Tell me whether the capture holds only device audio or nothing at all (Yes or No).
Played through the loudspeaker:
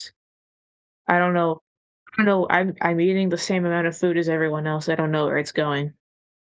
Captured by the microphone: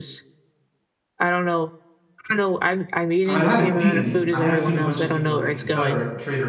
No